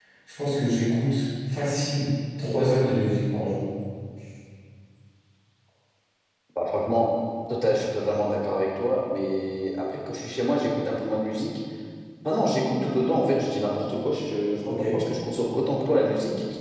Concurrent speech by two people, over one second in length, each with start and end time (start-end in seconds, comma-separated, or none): none